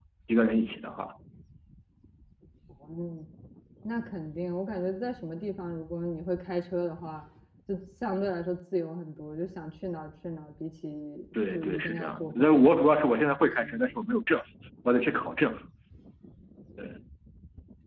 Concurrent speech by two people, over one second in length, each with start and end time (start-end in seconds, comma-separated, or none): 11.5-13.9